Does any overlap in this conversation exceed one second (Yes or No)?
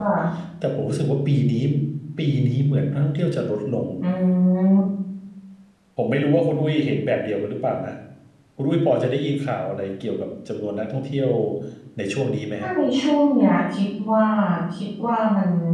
No